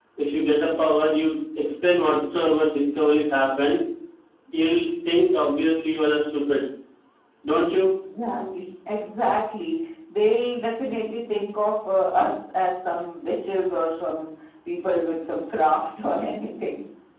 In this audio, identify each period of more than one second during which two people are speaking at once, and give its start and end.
none

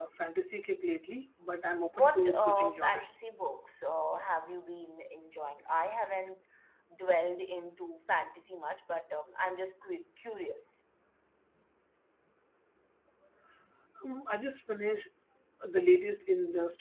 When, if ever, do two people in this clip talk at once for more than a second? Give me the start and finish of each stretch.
2.0-3.2

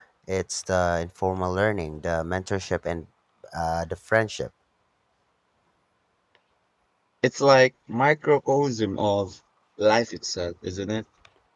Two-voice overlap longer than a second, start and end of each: none

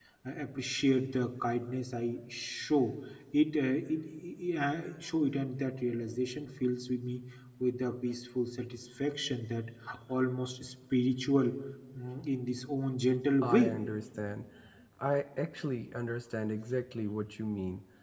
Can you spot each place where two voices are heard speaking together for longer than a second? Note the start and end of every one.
none

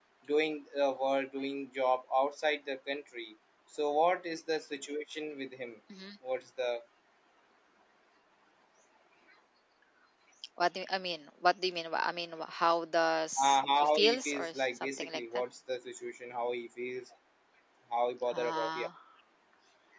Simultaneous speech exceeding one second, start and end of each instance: 13.4-15.2

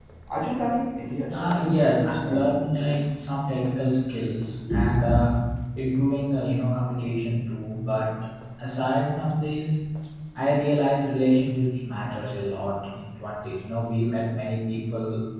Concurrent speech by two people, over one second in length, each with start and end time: 1.3-2.7

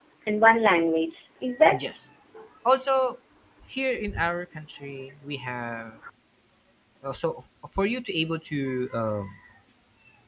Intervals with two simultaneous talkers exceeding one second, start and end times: none

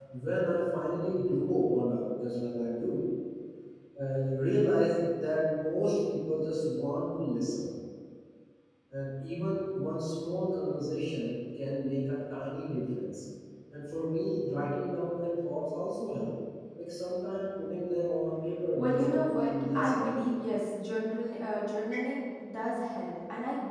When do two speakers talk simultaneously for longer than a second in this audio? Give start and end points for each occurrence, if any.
18.7-20.3

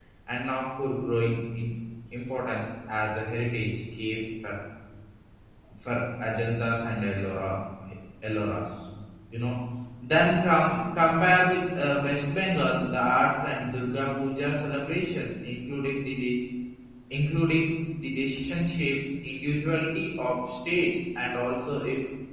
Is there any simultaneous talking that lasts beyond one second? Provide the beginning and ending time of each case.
none

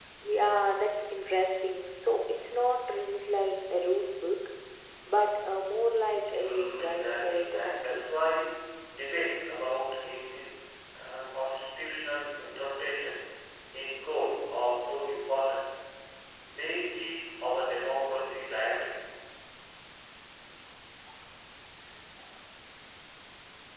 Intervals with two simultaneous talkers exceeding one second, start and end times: 6.4-8.1

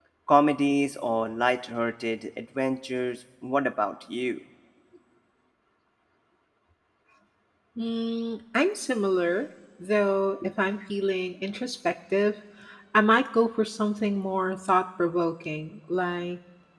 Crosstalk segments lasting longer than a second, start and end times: none

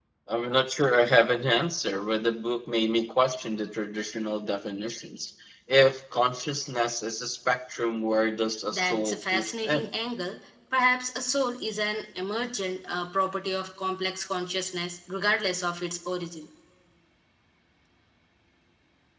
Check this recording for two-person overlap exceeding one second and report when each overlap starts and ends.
8.7-9.9

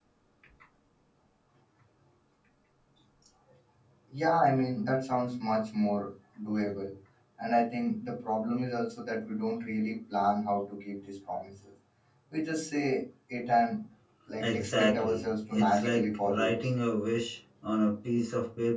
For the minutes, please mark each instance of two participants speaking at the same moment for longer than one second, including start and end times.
14.4-16.5

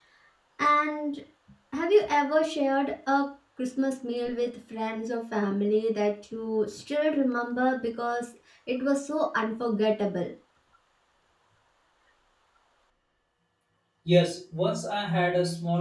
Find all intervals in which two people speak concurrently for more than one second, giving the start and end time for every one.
none

